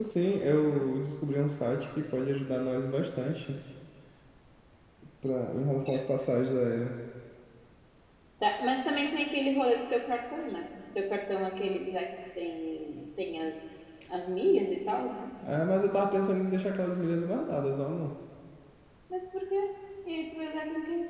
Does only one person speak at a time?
Yes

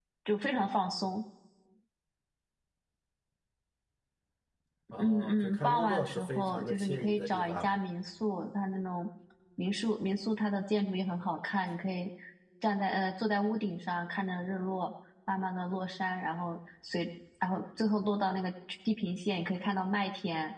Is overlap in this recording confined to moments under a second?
No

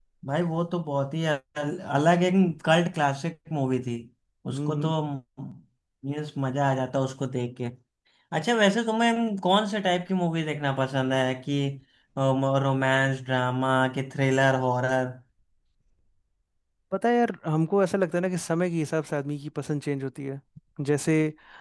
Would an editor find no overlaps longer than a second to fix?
Yes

